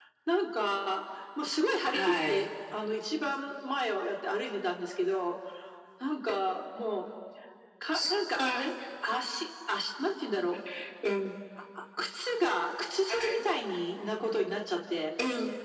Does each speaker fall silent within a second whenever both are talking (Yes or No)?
Yes